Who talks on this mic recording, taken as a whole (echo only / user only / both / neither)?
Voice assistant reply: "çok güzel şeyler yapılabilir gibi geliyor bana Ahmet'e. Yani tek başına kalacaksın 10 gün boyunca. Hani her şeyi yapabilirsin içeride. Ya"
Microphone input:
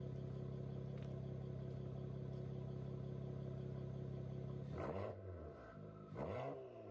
neither